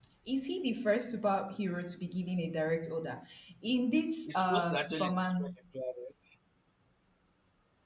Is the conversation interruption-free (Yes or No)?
No